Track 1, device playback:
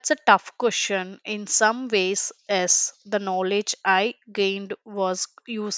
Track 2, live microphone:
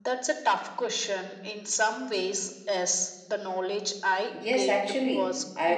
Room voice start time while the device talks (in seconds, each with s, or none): 4.3 s